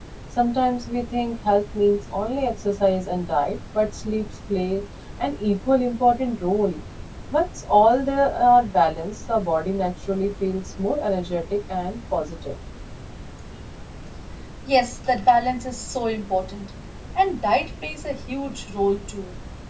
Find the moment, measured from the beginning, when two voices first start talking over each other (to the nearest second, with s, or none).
none